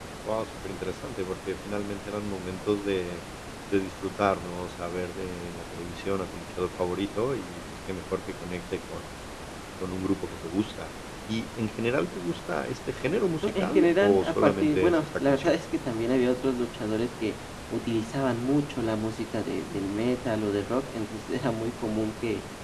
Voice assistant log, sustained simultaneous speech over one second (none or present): present